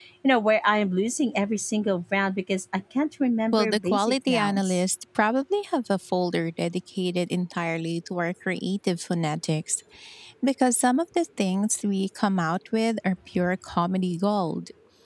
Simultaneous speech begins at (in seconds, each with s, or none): 3.5 s